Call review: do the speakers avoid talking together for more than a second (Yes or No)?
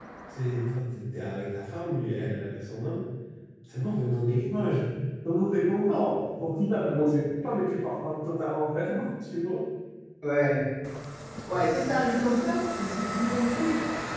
Yes